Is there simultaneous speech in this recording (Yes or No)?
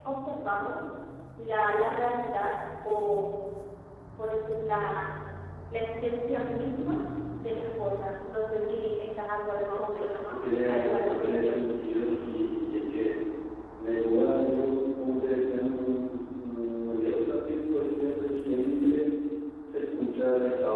Yes